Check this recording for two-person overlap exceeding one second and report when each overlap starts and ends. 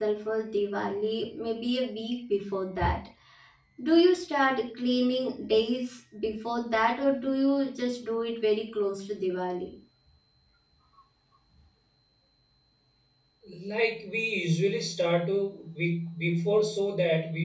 none

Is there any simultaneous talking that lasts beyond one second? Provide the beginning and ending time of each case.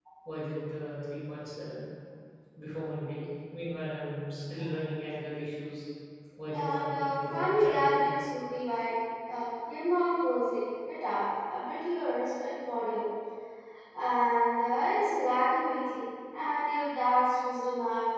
6.5-8.0

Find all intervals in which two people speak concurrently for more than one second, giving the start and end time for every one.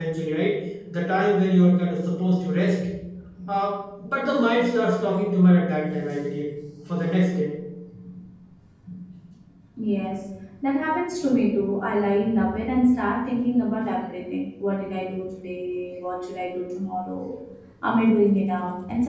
none

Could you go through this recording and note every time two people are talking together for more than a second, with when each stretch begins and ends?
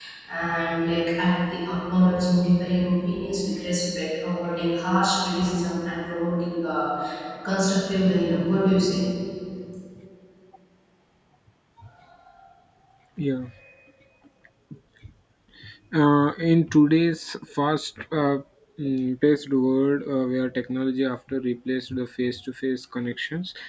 none

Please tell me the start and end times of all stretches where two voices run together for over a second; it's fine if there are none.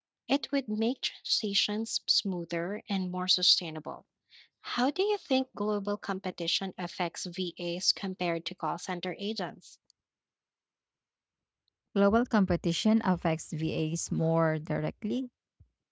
none

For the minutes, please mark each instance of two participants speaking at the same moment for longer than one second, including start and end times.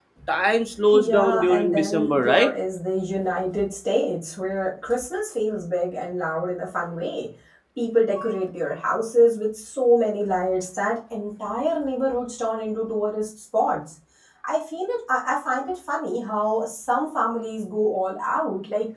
0.9-2.5

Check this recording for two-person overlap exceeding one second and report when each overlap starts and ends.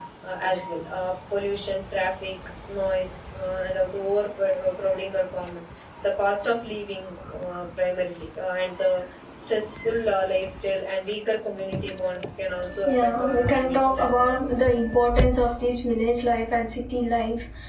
12.9-14.7

